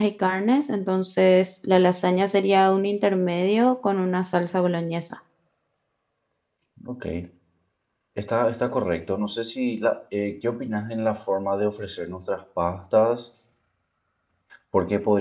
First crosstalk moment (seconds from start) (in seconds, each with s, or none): none